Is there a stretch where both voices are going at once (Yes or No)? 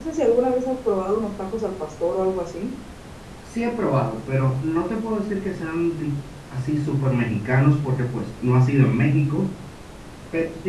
No